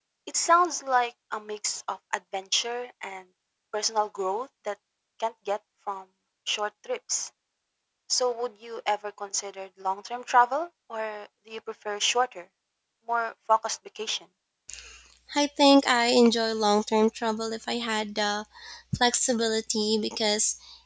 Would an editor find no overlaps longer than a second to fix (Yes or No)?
Yes